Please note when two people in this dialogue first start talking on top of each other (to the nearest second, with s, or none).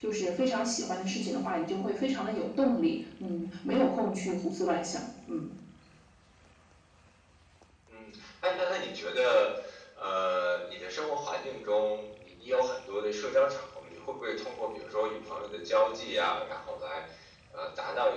none